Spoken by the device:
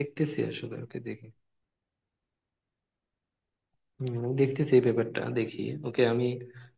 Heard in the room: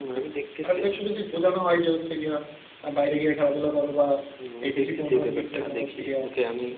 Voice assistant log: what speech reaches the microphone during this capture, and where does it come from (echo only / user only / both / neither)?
both